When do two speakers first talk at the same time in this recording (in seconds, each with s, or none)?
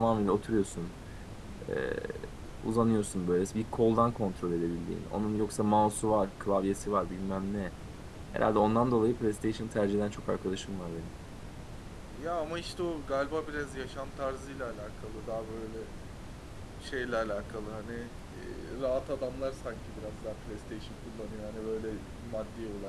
none